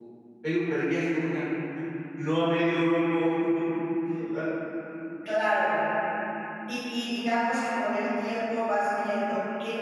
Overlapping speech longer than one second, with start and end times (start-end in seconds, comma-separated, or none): none